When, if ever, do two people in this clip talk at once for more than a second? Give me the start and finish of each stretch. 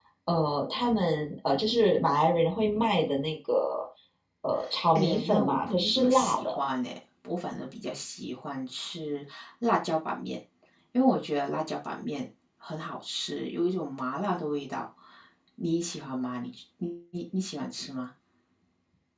5.0-6.5

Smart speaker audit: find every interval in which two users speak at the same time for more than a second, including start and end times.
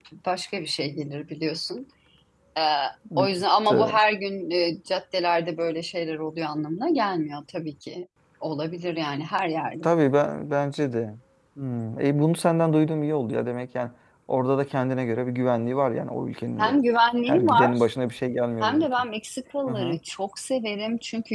none

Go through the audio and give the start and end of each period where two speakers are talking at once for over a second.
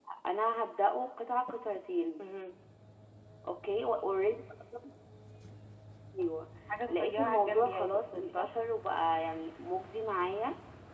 6.9-8.5

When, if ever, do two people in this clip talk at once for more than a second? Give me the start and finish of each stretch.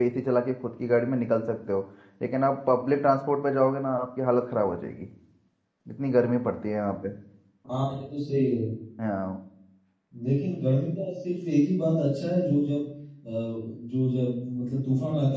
none

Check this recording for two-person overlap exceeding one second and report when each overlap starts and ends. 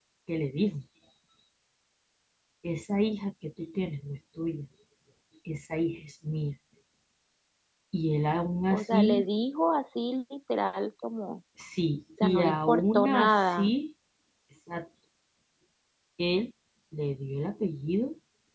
12.2-13.7

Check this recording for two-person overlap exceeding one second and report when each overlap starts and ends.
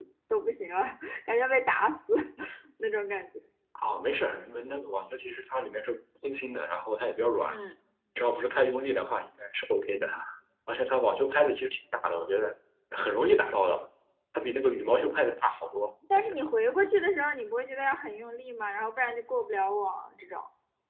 none

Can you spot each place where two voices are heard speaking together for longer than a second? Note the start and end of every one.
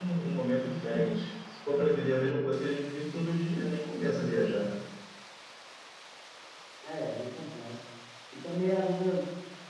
none

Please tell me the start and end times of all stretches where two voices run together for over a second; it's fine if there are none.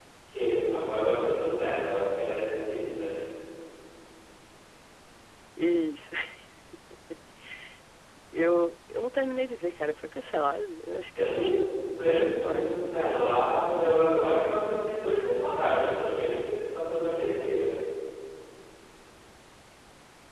11.2-13.0

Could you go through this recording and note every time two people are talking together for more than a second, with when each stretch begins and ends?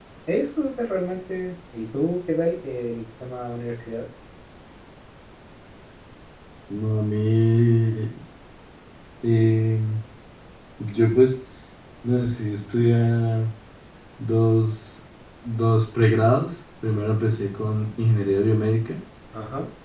none

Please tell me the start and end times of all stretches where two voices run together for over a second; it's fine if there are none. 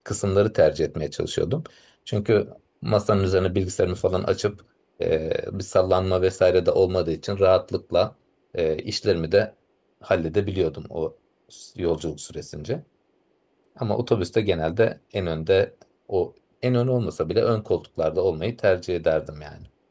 none

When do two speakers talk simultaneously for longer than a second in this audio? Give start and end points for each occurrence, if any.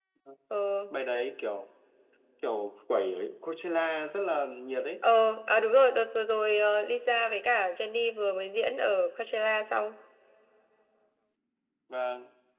none

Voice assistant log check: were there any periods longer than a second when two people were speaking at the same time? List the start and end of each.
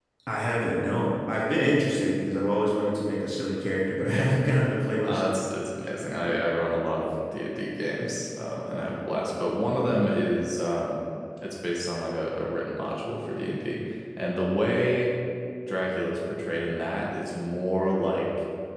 none

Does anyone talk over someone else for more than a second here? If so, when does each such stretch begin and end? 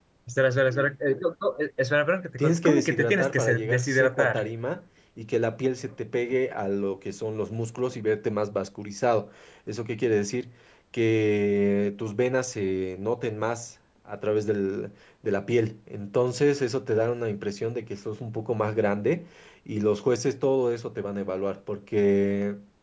2.4-4.5

